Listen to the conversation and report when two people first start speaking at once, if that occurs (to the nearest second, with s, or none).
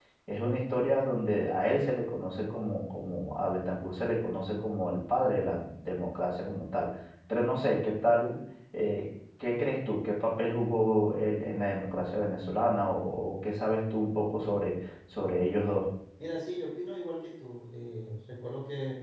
none